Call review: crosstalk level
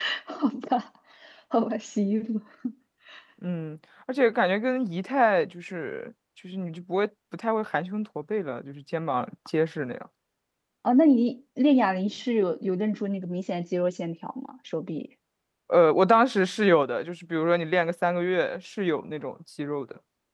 none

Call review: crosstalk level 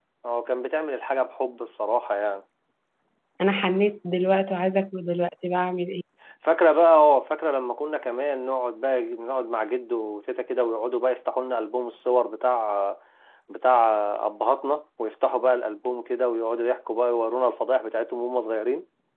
none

